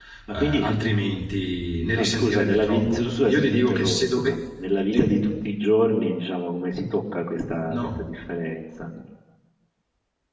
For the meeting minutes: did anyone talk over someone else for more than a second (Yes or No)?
Yes